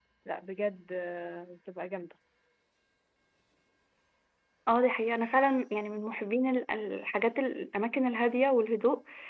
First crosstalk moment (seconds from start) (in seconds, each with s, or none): none